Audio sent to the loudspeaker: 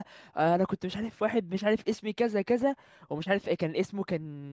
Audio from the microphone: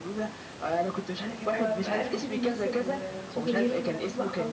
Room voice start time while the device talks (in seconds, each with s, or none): 1.3 s